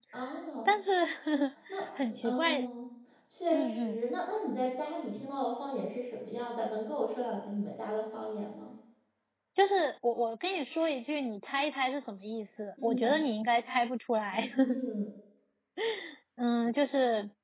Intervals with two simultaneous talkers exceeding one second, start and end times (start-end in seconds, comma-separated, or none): none